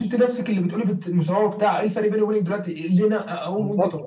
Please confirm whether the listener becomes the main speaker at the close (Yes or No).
Yes